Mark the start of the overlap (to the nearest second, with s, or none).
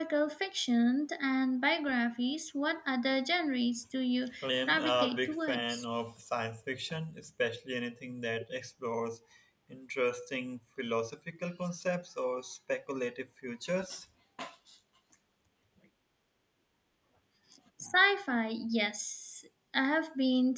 4 s